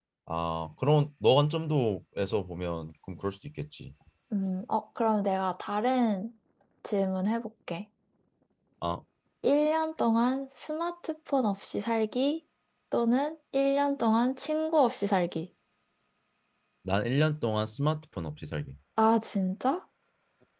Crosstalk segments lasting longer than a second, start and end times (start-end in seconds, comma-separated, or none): none